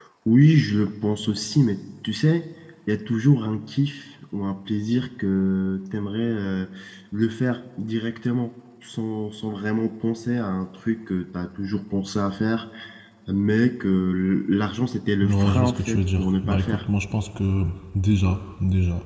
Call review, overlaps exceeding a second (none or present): present